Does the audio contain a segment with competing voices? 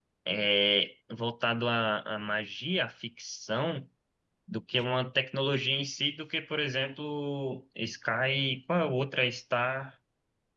No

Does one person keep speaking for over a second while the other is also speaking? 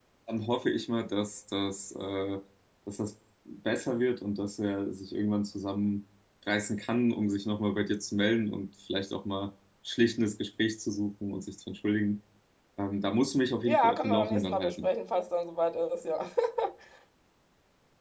Yes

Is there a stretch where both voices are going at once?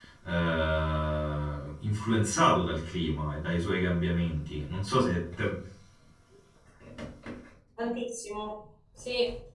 No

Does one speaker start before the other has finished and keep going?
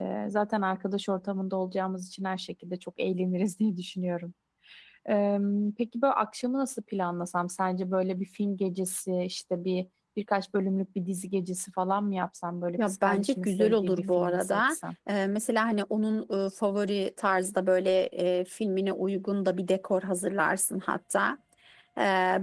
Yes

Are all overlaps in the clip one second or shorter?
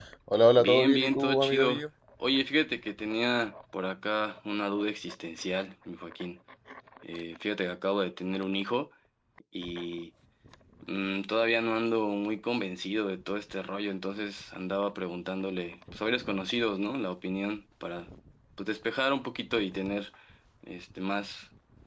No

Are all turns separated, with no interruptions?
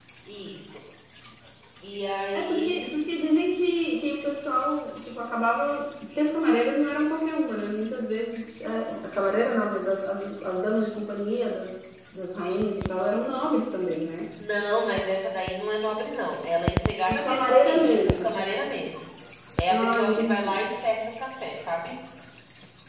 No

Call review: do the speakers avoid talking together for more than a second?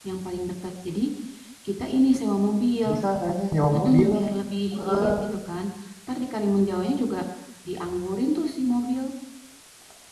Yes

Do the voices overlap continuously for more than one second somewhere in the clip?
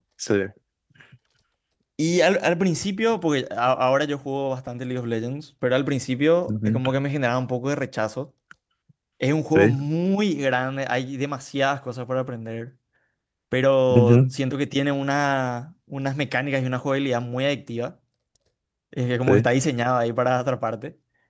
No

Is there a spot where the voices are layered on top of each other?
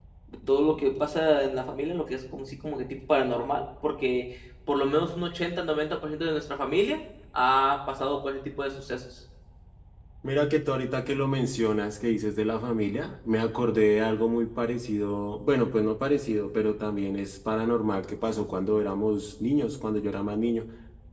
No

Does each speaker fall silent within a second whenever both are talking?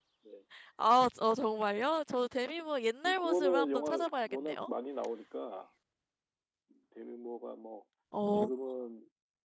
No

